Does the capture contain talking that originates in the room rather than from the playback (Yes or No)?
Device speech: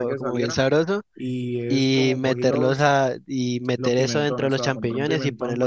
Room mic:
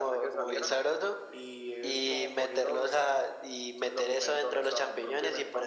No